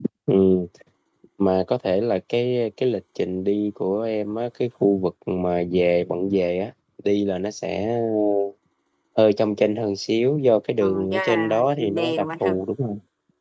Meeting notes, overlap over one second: present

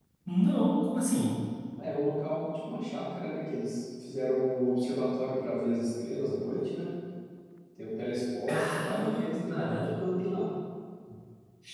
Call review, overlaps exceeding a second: present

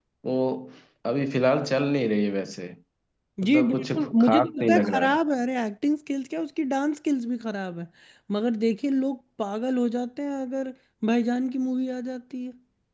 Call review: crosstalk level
present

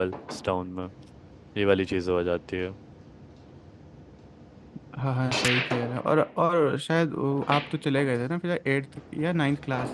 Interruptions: none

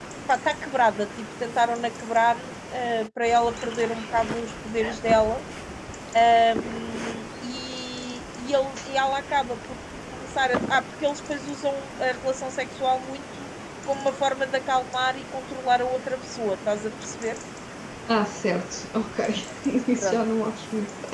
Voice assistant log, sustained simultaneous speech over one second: none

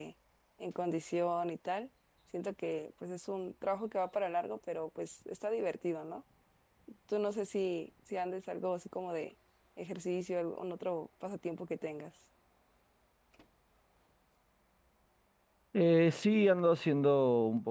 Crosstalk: none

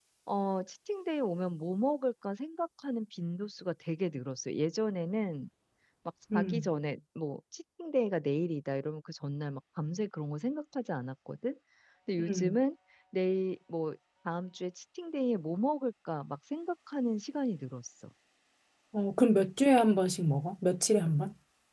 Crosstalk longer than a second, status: none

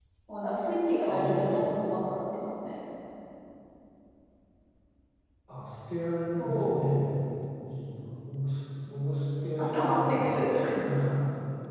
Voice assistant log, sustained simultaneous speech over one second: present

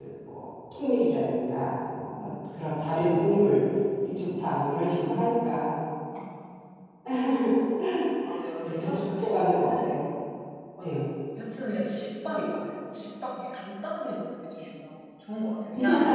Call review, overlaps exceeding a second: present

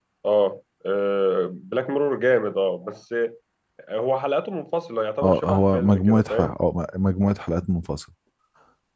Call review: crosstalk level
present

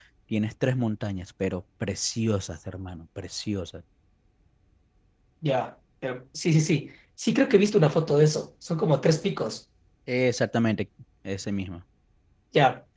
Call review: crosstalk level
none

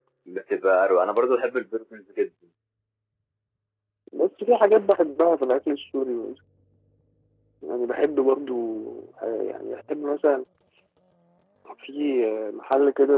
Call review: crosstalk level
none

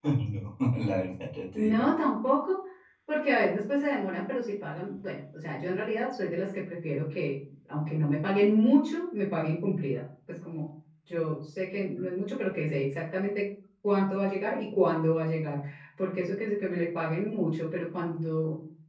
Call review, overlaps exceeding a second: none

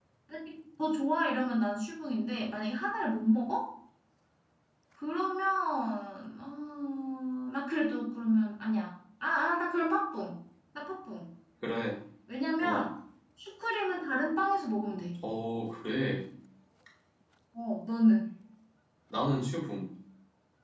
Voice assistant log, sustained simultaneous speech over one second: none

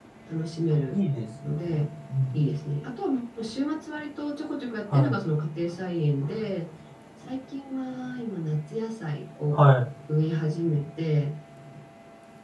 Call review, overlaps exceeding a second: none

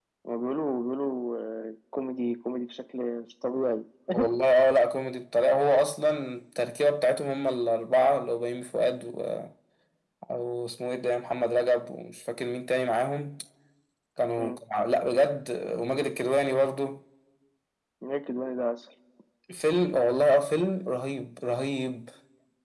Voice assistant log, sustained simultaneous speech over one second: none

